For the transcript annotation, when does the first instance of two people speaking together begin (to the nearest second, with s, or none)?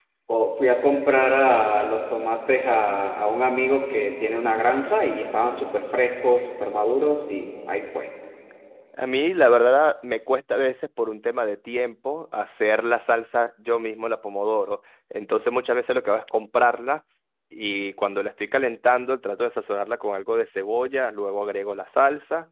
none